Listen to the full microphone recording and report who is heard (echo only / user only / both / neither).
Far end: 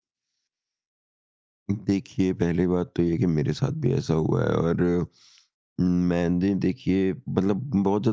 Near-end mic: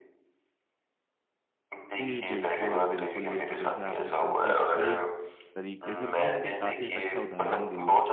both